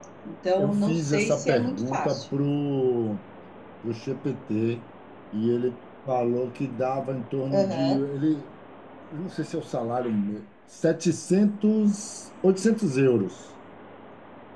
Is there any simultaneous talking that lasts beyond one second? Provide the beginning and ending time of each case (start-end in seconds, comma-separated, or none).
0.6-2.2